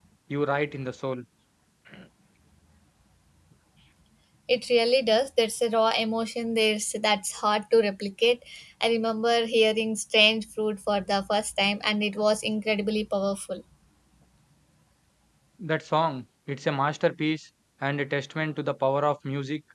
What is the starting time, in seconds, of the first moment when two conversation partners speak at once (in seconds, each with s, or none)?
none